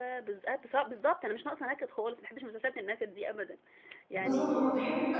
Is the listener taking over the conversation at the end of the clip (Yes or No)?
Yes